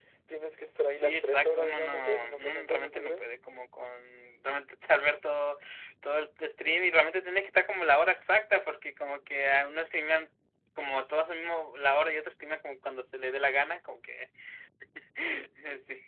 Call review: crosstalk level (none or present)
present